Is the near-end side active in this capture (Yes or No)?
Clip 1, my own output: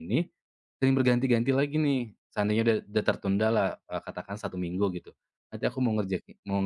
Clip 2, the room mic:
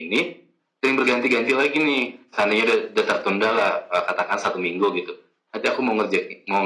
No